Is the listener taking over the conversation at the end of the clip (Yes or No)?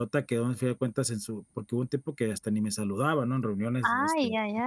Yes